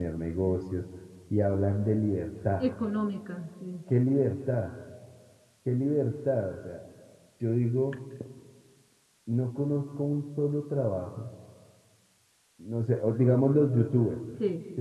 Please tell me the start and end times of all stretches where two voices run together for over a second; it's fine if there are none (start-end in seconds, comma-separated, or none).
none